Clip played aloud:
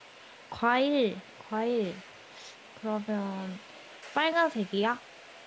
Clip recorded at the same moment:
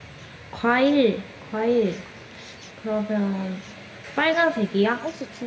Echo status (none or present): present